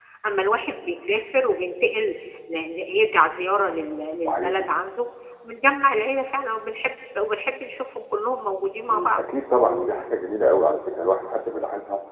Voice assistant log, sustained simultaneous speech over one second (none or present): none